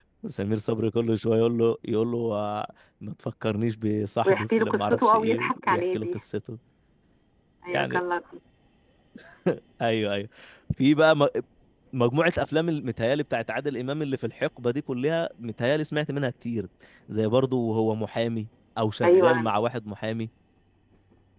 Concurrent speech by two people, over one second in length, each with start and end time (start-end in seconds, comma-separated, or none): 4.2-6.2